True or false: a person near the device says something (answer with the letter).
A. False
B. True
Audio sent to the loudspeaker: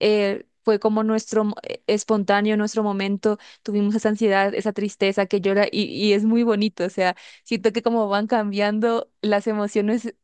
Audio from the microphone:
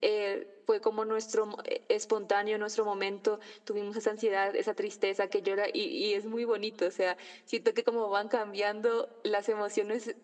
A